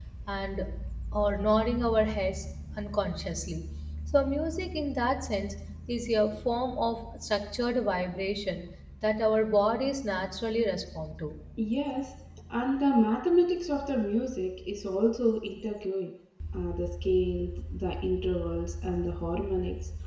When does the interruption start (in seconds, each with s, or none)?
none